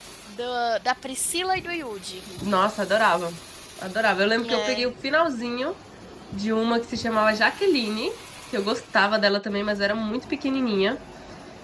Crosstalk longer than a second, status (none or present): none